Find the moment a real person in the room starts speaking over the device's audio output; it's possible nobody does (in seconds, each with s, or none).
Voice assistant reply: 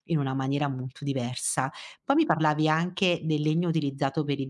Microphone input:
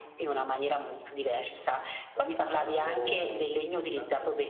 2.1 s